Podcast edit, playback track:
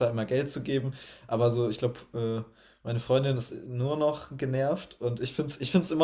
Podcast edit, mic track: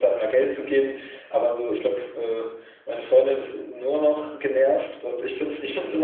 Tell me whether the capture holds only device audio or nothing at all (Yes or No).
Yes